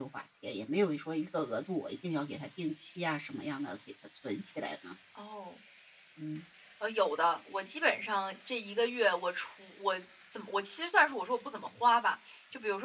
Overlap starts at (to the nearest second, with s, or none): none